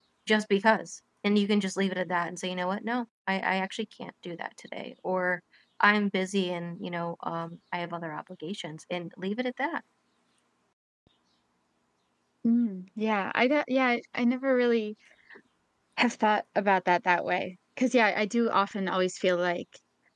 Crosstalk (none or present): none